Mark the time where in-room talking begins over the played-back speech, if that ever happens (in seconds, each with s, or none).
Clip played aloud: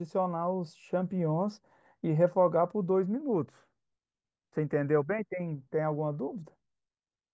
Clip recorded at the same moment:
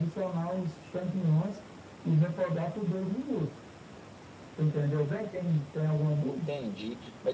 6.2 s